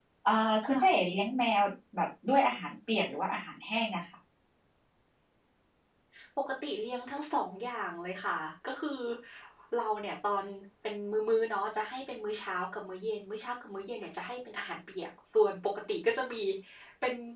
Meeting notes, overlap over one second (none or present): none